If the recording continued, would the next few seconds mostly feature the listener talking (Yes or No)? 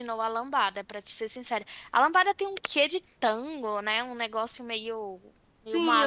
Yes